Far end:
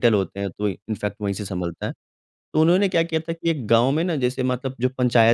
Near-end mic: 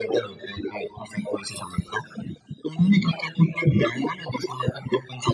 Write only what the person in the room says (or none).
none